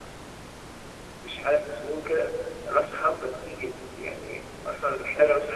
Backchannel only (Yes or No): Yes